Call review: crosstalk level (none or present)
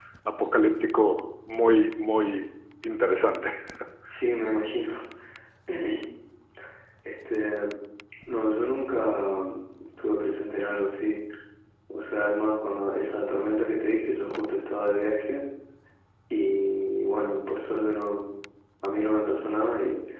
none